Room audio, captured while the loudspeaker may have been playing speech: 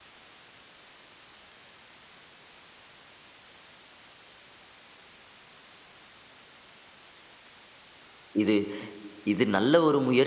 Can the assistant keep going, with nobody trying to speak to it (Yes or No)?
No